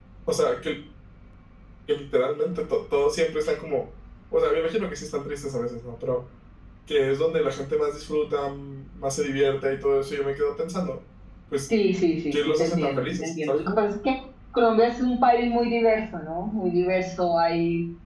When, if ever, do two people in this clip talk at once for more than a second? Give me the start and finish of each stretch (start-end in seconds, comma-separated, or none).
12.3-13.8